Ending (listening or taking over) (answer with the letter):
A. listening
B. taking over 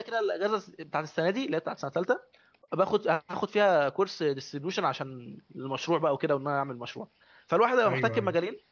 A